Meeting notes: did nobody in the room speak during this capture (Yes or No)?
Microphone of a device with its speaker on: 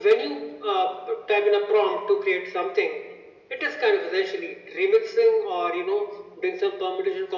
Yes